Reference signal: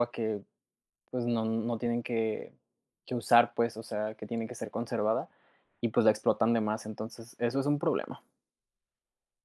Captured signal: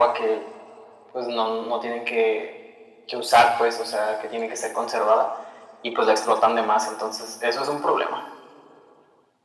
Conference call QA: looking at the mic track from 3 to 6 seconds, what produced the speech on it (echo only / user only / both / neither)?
echo only